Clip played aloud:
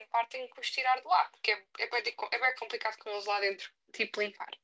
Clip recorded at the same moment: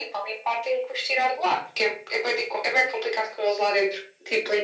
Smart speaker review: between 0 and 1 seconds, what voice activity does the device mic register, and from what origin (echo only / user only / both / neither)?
echo only